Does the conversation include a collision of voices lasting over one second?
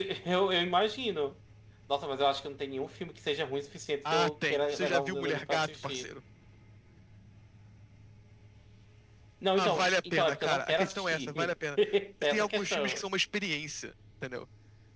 Yes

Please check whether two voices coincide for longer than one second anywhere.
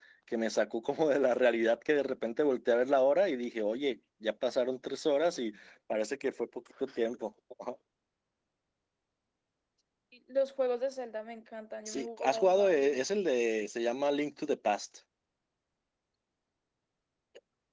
Yes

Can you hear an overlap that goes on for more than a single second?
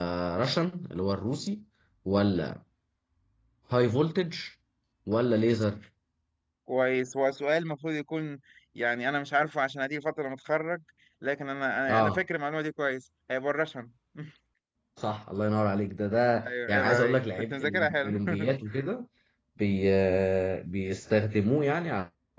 Yes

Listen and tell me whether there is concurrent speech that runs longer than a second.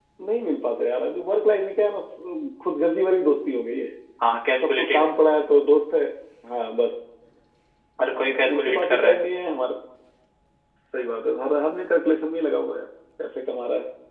Yes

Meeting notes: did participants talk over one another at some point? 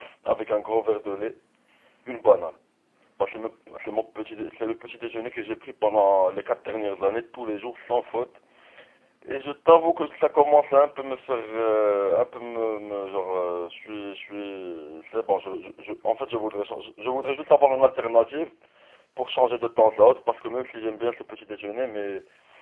No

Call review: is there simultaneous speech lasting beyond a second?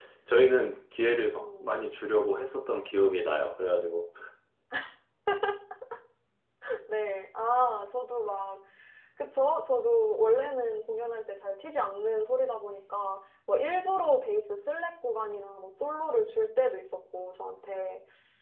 No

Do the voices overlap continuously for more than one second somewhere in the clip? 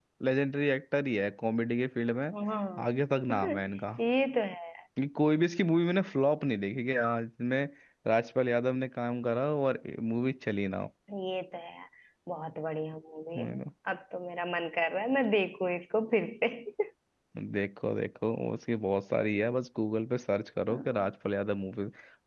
No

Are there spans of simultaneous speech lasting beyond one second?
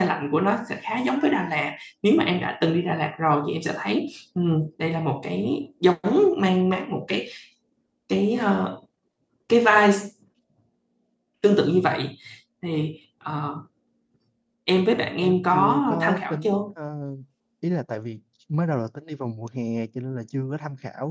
Yes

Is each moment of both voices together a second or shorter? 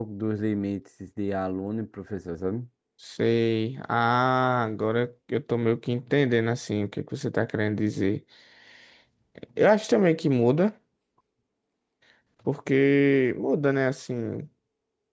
Yes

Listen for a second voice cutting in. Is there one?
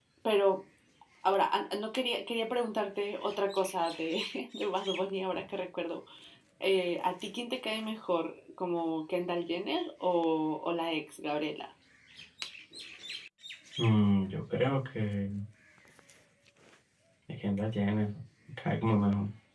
No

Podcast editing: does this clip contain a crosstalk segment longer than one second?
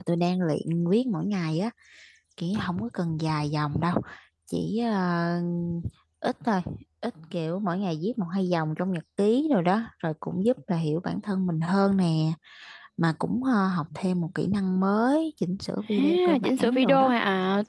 Yes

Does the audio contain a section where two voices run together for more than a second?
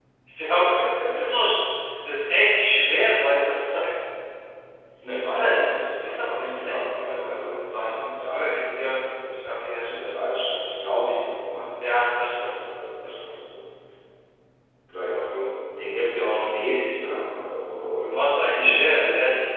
Yes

